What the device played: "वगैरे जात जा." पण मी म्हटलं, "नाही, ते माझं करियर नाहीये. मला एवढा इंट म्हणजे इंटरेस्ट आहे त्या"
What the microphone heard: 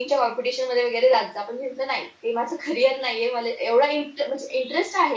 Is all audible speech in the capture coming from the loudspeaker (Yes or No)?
Yes